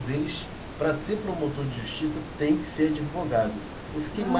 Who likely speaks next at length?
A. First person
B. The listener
B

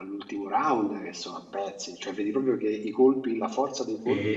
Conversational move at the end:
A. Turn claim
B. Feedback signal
B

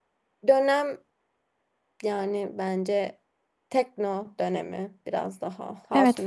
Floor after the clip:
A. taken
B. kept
A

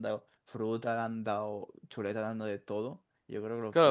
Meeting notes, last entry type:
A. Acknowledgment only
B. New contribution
B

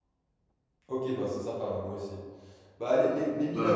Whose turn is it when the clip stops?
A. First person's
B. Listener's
A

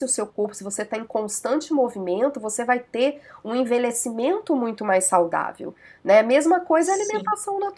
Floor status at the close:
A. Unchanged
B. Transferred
A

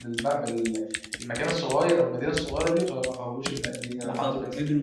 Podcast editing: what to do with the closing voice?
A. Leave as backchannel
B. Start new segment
B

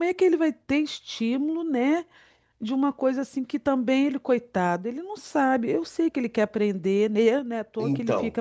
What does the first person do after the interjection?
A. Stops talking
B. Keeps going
A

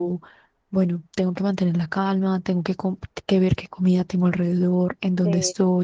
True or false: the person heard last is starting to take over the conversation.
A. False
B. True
A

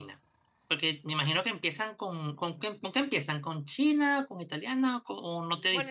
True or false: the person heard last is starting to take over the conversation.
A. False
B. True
B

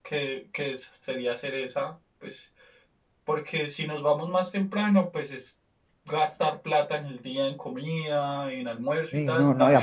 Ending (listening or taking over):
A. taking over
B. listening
A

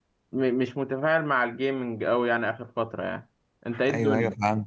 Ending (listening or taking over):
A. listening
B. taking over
B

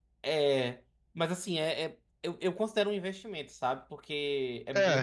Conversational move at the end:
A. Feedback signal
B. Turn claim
A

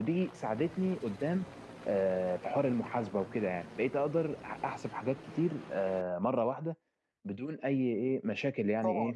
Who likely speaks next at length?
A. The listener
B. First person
A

